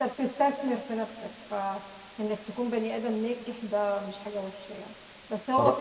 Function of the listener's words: listening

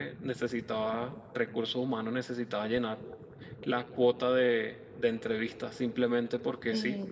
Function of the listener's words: taking over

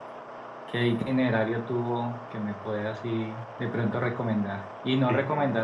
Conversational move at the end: listening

